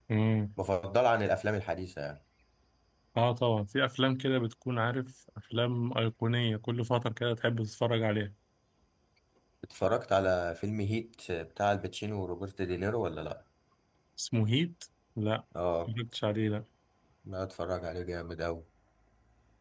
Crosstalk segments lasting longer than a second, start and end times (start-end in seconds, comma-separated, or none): none